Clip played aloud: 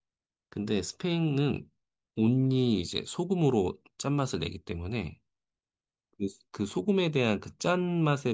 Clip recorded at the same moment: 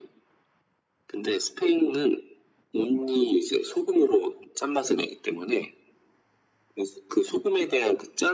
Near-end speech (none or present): none